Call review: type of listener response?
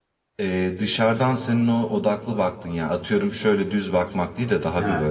listening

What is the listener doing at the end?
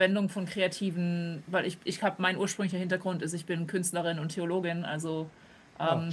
listening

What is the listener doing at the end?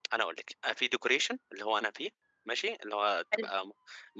listening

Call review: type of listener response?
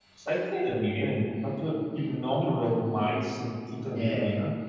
taking over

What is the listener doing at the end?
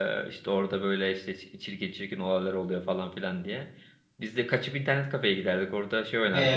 taking over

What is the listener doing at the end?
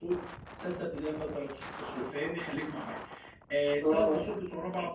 listening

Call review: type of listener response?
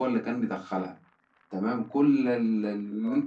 listening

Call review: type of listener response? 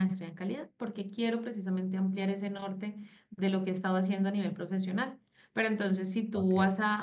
listening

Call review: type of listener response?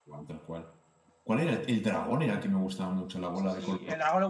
taking over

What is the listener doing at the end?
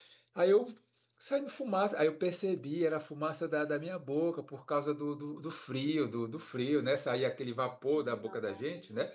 listening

